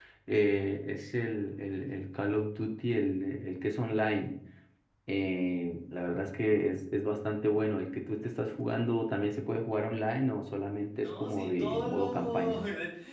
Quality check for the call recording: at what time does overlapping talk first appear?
11.0 s

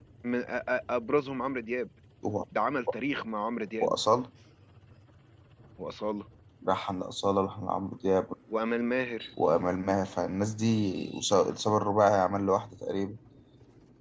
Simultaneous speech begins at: none

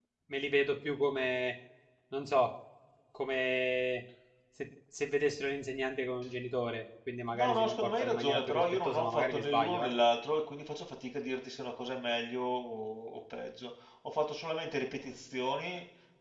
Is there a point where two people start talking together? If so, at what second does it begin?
7.3 s

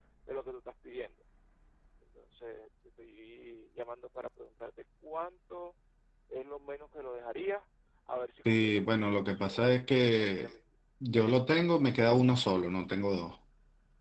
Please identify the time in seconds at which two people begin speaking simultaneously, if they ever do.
8.4 s

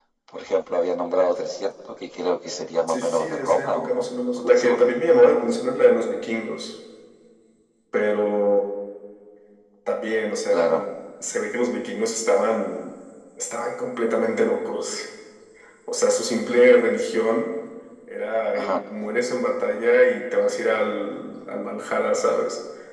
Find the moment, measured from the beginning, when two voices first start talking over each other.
2.9 s

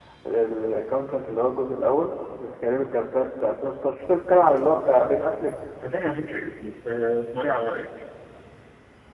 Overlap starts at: none

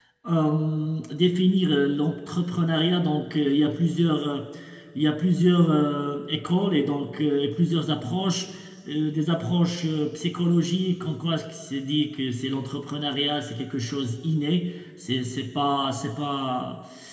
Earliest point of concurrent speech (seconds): none

